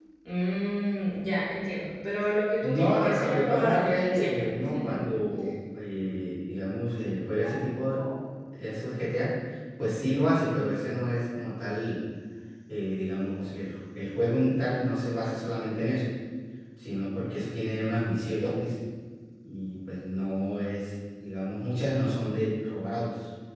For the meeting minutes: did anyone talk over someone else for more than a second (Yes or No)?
Yes